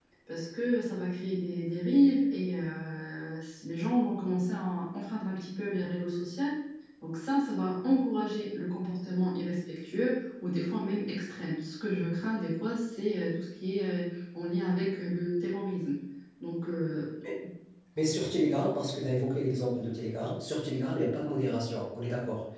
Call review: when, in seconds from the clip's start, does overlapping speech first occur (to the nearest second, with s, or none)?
none